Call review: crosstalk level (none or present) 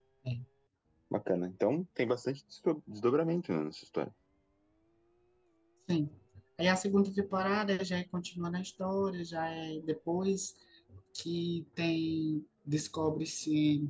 none